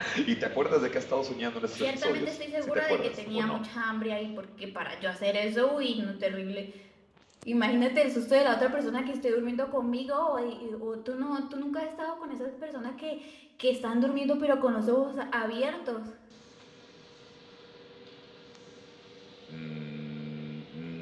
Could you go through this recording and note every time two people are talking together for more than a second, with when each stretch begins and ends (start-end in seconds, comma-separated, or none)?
1.8-3.6